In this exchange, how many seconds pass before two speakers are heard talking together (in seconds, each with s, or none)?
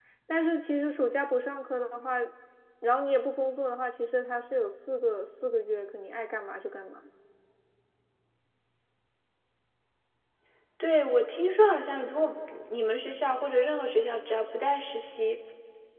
none